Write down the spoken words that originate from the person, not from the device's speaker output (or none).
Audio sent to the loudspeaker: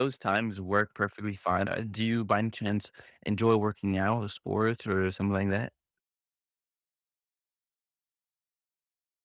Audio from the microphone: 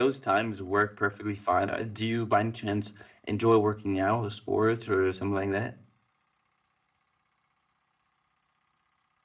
none